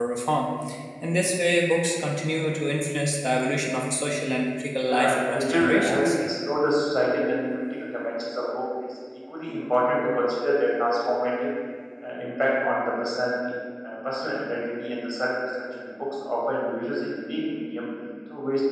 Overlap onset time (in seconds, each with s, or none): 4.8 s